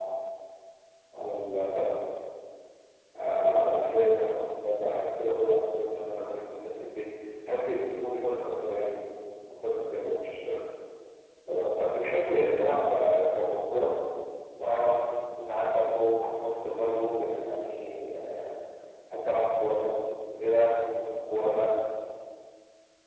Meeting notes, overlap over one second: none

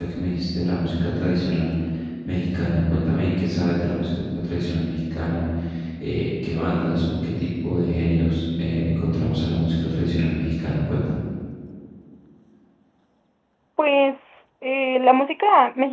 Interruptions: none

